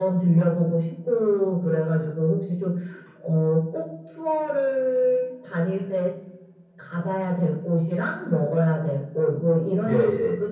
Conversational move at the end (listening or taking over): listening